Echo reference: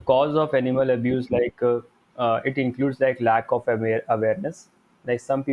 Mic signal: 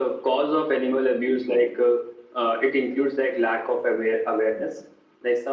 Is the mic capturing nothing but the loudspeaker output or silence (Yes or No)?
Yes